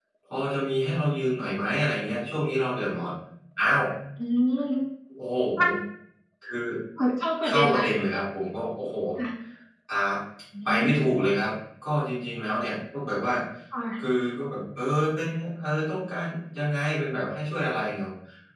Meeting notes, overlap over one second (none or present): none